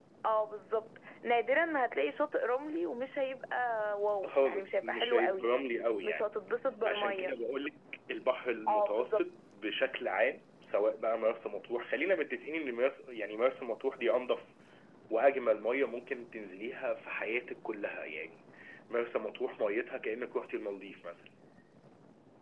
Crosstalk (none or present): present